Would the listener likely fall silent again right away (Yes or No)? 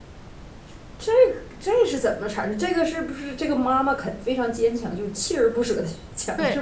No